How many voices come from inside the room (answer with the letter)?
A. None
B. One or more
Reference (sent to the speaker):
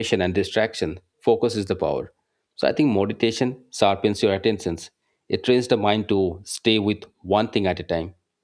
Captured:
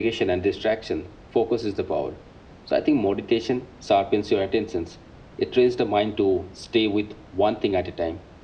A